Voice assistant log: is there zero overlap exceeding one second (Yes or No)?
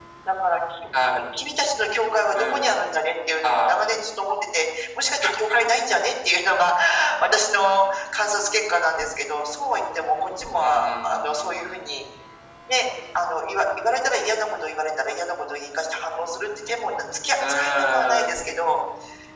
No